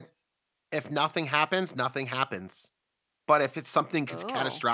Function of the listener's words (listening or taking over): listening